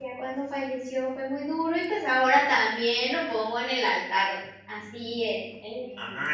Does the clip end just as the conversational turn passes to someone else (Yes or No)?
Yes